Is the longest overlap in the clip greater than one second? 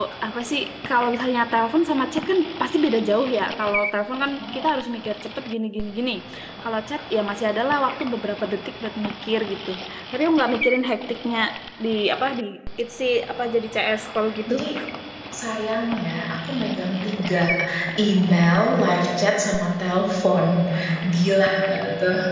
No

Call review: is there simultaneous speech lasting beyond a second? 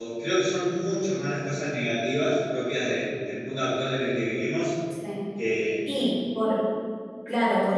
No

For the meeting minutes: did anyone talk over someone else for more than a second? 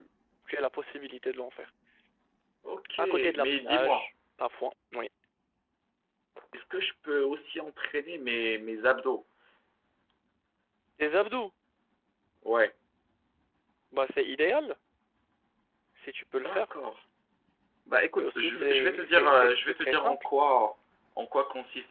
Yes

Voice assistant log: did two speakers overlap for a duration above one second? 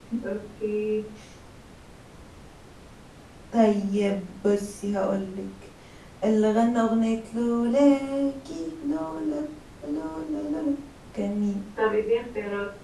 No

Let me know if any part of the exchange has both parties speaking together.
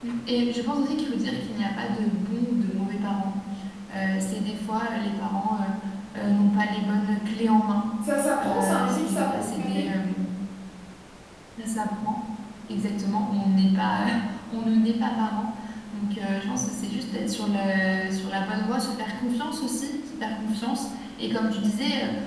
Yes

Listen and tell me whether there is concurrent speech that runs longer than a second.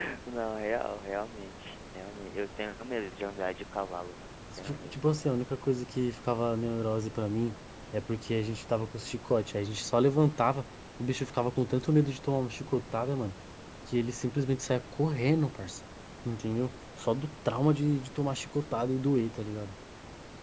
No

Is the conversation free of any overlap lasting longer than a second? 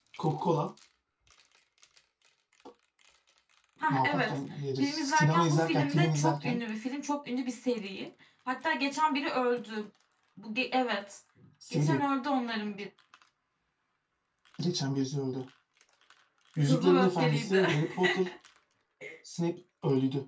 No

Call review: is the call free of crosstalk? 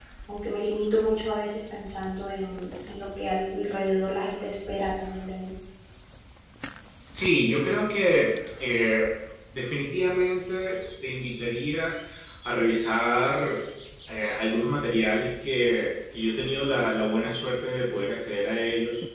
Yes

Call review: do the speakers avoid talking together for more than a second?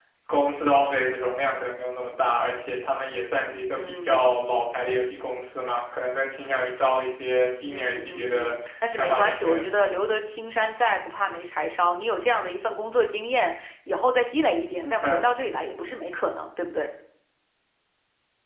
No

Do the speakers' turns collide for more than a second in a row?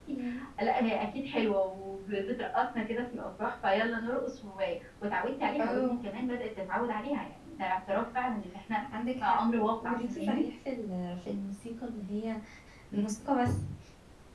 Yes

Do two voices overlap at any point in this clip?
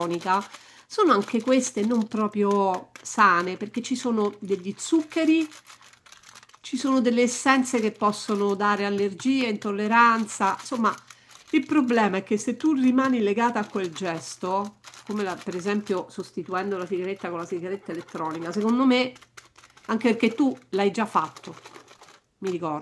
No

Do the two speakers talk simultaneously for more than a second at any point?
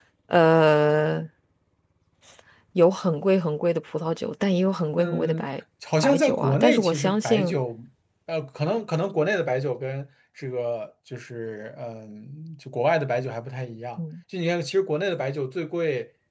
Yes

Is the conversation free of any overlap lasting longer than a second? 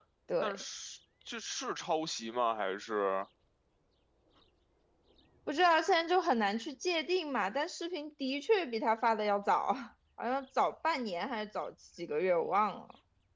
Yes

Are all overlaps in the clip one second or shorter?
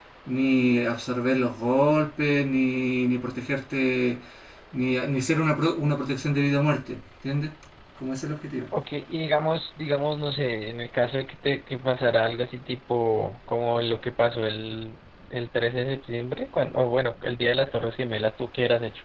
Yes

